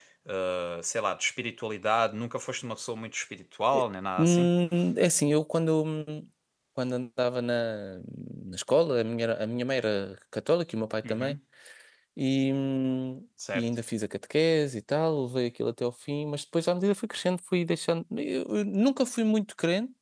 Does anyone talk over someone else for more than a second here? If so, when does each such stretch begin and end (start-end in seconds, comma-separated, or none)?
none